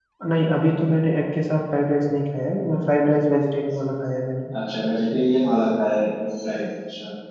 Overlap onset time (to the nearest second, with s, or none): none